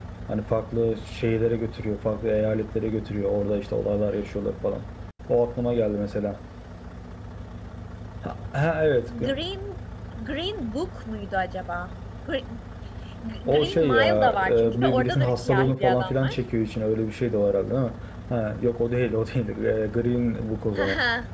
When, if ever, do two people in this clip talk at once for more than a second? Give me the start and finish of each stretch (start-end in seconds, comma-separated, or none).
13.5-16.3